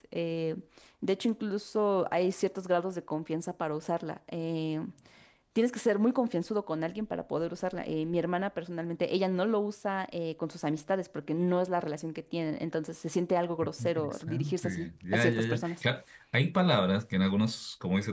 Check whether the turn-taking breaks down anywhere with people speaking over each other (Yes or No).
Yes